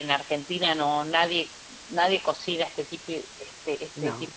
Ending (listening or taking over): listening